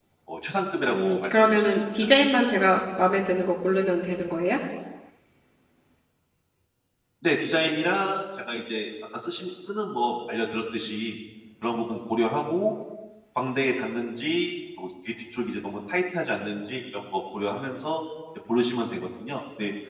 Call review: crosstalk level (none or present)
present